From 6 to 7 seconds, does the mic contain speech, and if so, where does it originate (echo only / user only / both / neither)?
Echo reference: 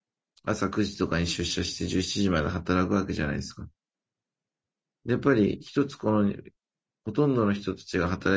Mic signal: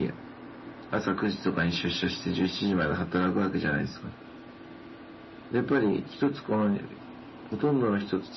echo only